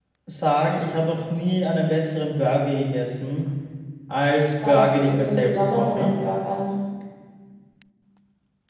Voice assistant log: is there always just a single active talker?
No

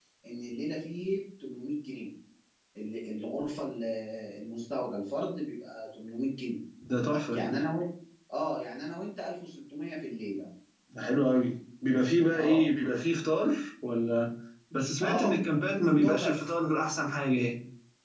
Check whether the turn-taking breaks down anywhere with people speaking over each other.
Yes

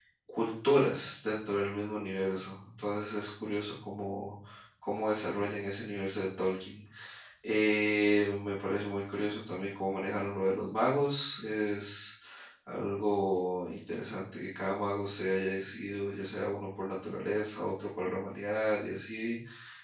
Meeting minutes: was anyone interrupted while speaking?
No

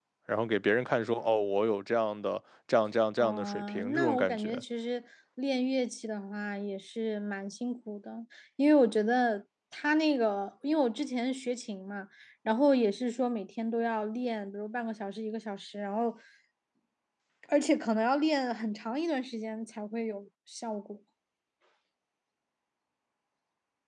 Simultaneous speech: Yes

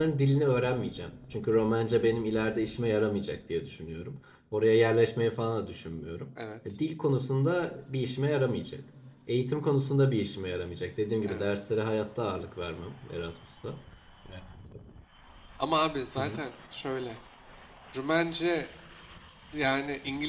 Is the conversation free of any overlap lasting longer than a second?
Yes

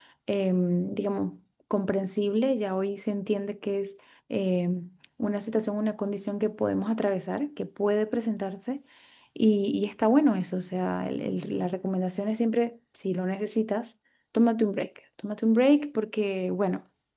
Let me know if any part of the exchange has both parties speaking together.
No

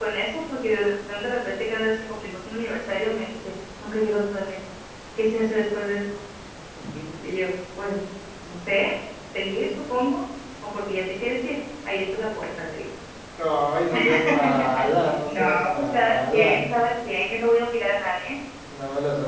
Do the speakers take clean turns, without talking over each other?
No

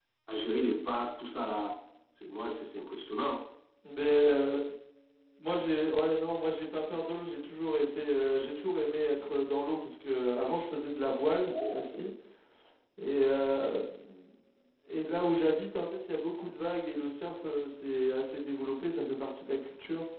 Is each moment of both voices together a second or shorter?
Yes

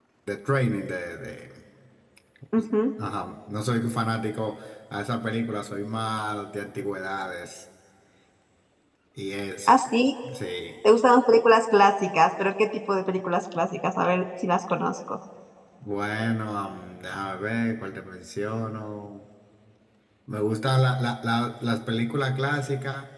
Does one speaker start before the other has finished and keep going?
No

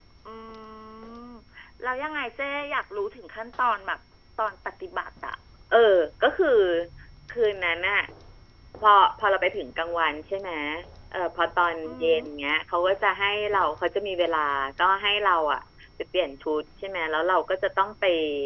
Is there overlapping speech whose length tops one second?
No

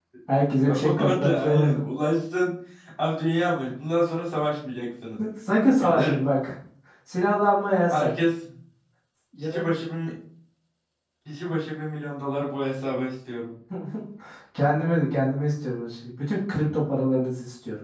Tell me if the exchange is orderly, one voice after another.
No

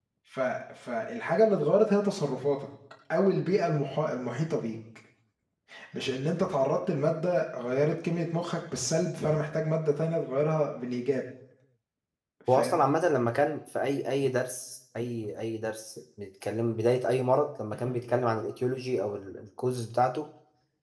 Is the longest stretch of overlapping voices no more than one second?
Yes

